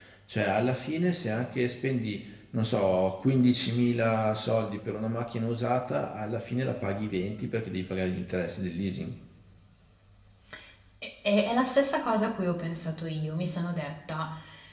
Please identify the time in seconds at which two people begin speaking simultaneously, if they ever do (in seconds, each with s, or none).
none